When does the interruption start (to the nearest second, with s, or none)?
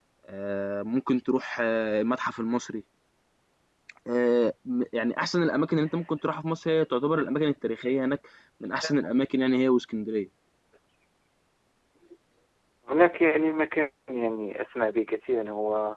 none